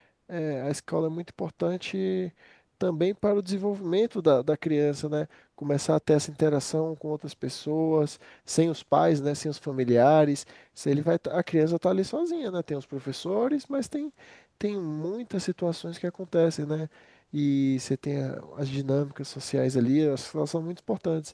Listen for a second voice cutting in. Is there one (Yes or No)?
No